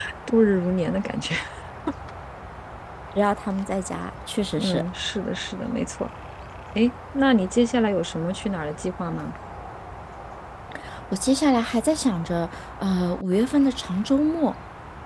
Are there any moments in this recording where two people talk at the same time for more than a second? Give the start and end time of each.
none

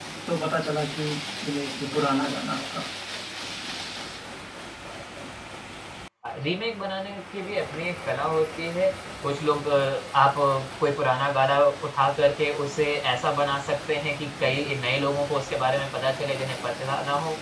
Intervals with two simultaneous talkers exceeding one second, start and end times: none

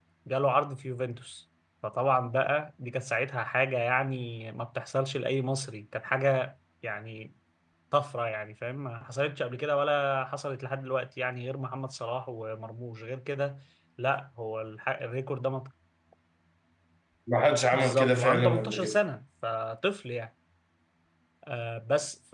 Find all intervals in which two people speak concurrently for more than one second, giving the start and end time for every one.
17.7-19.0

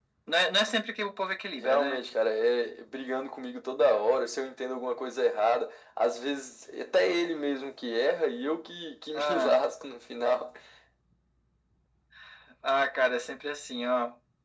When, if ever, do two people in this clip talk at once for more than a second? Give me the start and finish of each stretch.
none

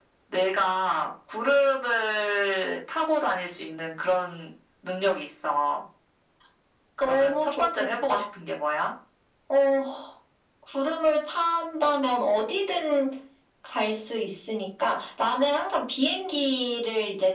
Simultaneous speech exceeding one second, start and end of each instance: 7.0-8.2

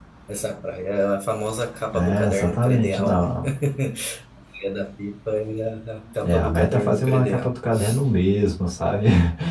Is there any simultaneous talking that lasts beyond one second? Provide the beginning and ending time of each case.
1.9-3.3, 6.2-7.5

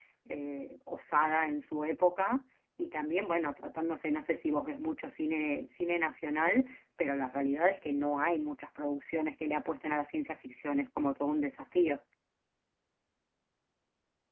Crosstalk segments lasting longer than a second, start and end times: none

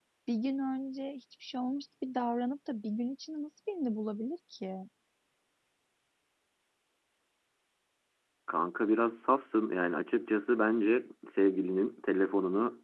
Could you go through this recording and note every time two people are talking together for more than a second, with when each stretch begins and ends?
none

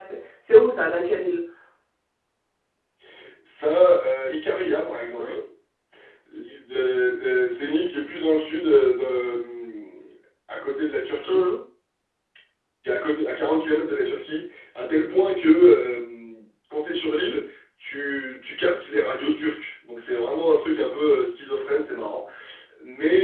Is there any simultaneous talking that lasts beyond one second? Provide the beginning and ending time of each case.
none

